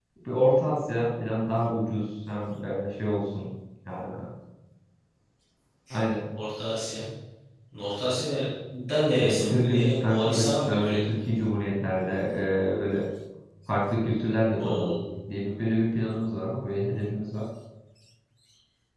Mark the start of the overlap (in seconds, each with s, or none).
9.2 s